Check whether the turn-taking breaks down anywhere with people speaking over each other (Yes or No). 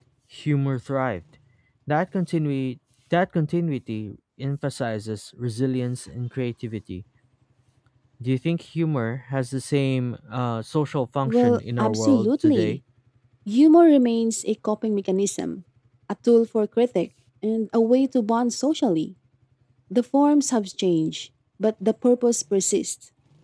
Yes